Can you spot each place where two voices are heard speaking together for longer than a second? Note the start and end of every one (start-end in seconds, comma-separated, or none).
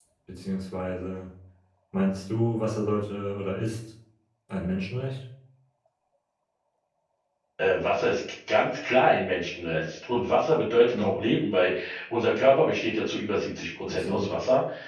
none